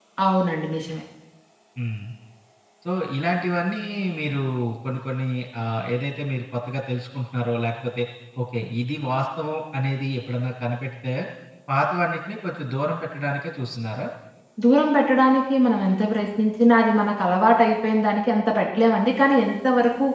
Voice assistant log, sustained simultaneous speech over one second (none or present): none